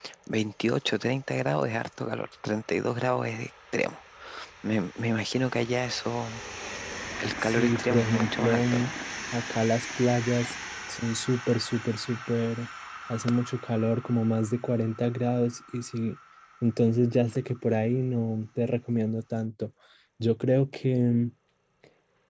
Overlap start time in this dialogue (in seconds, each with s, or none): 7.4 s